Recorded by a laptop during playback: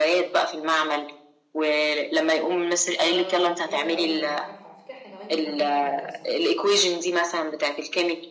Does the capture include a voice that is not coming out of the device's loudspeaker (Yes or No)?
Yes